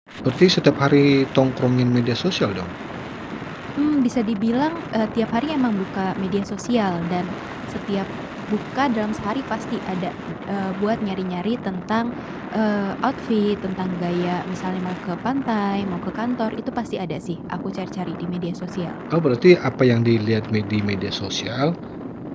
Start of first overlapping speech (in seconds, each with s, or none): none